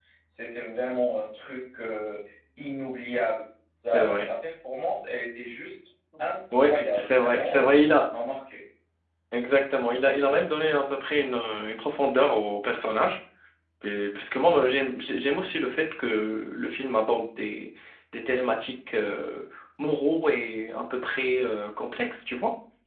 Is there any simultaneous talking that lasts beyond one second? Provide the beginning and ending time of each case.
6.6-8.0

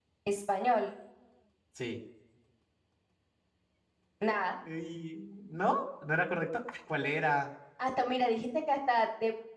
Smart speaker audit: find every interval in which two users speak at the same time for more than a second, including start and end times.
none

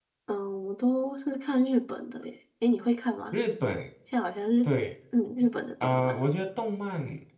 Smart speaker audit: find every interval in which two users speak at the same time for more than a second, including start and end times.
none

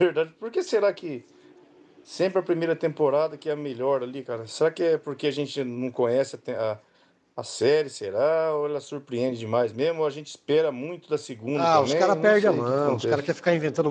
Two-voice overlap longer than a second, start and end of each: 11.6-13.2

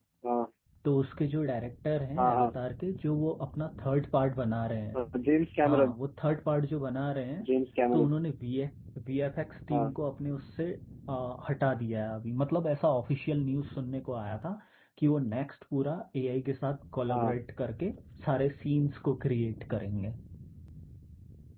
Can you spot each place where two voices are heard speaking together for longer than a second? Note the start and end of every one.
none

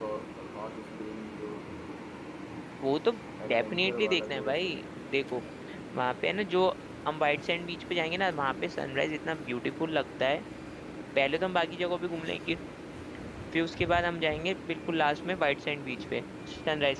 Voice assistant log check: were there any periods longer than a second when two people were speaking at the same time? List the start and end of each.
3.5-4.8

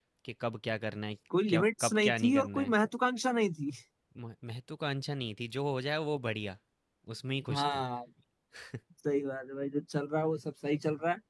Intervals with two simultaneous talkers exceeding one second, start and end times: 1.5-2.7

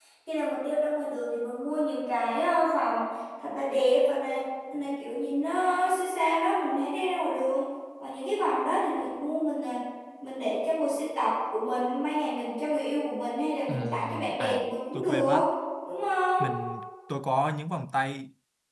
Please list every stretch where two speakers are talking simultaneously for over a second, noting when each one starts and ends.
13.7-15.4

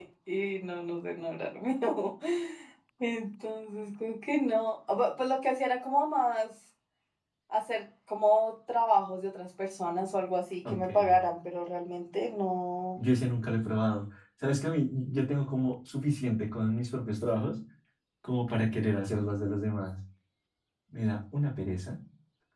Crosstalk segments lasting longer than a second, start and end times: none

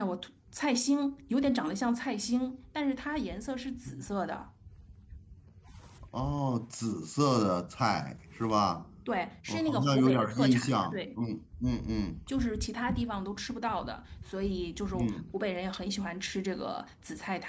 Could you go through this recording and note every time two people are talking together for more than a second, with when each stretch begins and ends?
9.5-11.0

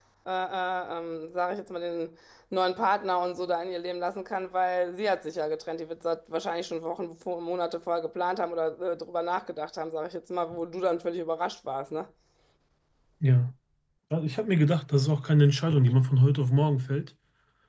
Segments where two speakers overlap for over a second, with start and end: none

